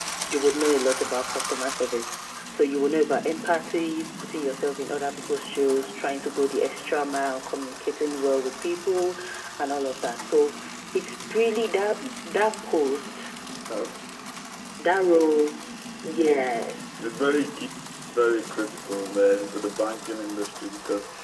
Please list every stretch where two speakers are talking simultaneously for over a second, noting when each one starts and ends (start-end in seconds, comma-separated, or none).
none